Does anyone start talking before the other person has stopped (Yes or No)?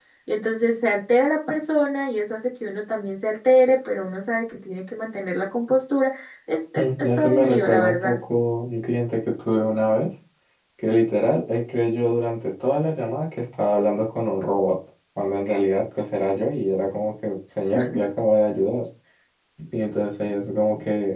Yes